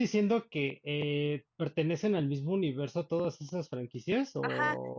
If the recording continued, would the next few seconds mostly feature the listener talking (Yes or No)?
Yes